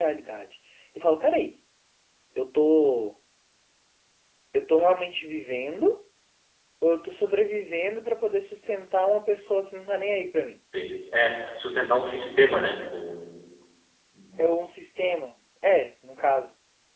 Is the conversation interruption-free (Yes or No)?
Yes